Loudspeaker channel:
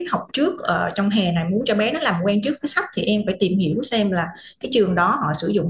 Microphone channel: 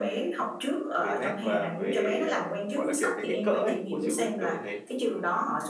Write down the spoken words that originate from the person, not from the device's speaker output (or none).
về nét và về ờm, gọi là kiểu cái kích cỡ ấy của chữ ấy, kiểu như thế